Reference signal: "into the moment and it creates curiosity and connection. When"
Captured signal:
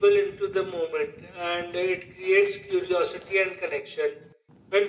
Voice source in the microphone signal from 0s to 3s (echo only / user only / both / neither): echo only